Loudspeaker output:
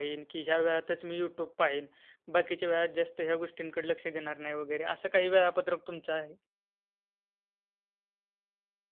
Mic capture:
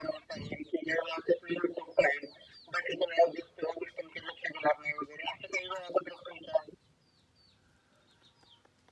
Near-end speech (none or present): none